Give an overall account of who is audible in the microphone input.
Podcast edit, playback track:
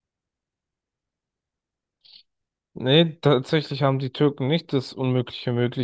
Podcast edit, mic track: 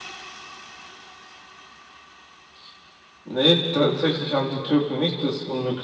echo only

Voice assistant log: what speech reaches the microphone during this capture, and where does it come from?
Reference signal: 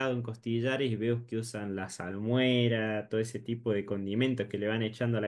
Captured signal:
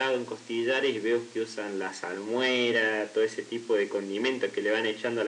echo only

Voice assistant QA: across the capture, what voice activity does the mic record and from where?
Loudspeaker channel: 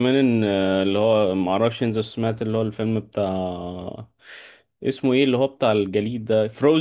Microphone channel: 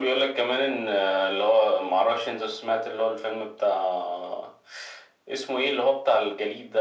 echo only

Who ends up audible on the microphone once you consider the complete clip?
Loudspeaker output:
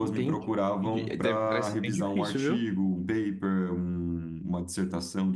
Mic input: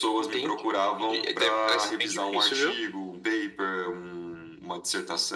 echo only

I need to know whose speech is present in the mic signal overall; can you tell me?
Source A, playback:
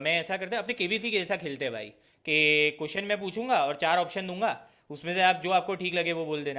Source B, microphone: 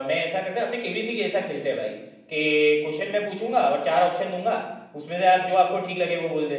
echo only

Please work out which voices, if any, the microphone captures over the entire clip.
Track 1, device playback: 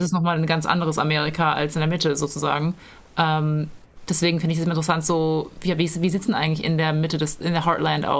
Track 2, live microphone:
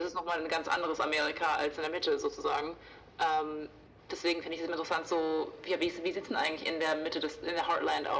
echo only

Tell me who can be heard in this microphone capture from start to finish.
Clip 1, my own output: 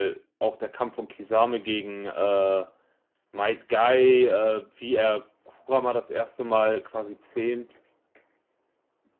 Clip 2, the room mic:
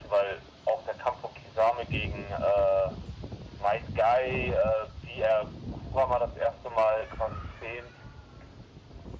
echo only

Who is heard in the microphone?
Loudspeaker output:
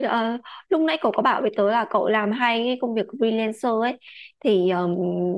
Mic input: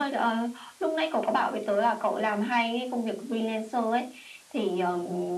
echo only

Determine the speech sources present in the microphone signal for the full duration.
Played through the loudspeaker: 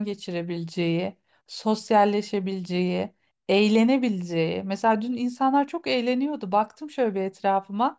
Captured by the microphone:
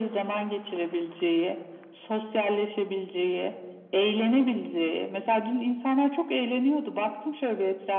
echo only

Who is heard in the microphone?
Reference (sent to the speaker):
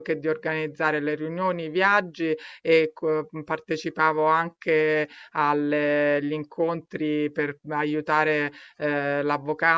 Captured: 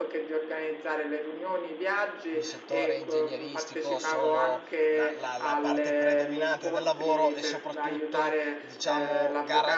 both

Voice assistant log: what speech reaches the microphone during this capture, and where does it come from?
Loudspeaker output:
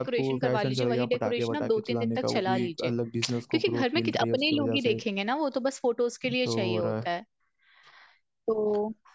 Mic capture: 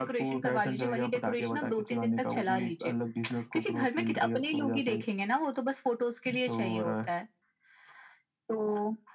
echo only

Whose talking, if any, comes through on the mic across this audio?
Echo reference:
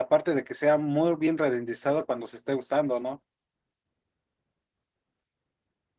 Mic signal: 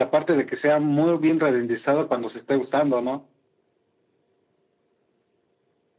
echo only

